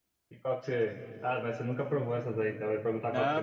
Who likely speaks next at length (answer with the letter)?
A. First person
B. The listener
B